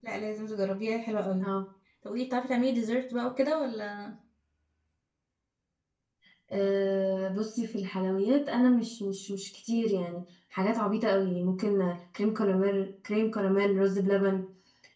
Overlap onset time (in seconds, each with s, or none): none